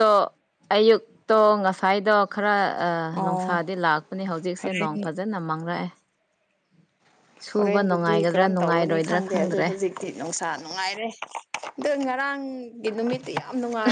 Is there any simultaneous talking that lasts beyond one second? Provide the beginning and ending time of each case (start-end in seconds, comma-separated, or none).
7.5-9.7